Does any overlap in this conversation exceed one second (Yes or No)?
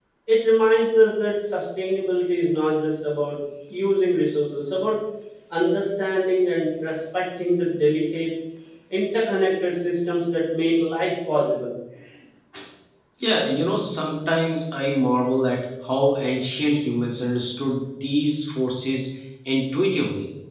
No